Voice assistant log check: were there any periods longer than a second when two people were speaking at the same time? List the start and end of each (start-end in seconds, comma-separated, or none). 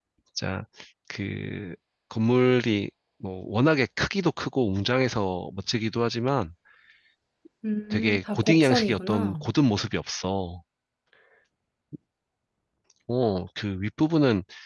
7.9-9.4